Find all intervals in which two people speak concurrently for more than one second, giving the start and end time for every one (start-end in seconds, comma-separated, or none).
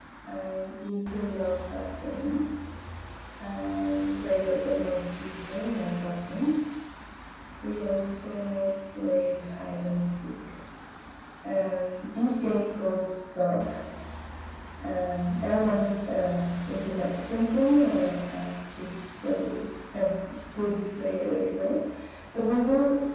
none